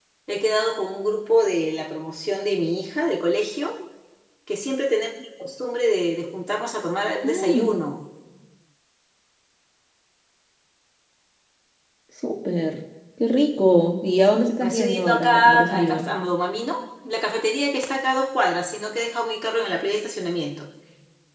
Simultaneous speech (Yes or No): Yes